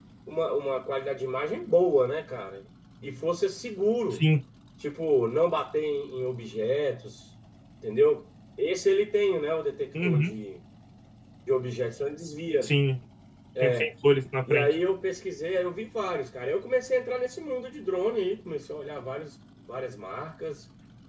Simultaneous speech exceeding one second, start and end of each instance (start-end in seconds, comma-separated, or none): none